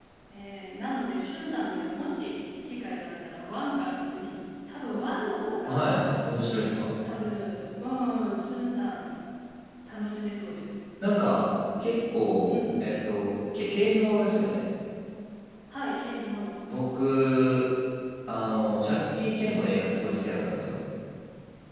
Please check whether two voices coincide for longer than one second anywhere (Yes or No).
No